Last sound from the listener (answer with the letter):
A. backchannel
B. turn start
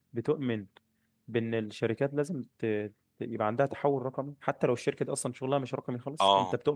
B